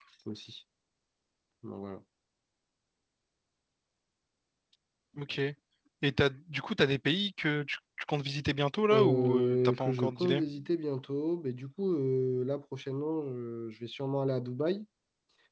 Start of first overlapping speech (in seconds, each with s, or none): 8.9 s